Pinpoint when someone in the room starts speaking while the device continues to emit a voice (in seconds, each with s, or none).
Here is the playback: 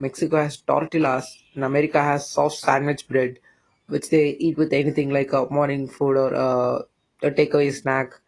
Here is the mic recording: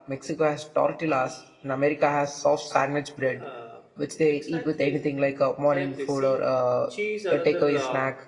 3.2 s